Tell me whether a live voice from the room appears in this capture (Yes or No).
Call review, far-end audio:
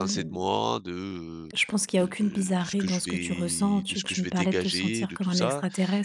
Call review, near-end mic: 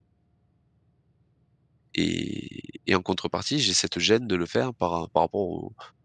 Yes